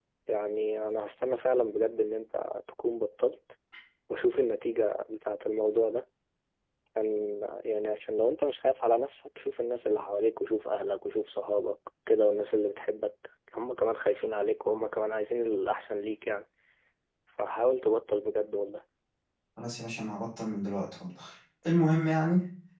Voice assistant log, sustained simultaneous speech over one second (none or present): none